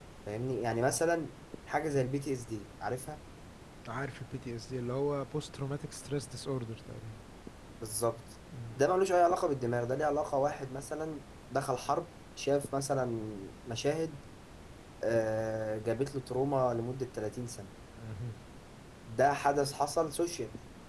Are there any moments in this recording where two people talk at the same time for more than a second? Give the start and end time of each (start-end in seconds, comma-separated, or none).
none